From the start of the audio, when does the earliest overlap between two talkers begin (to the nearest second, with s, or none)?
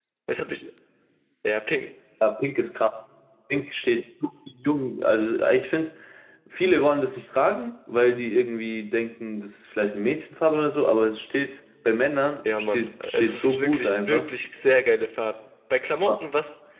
12 s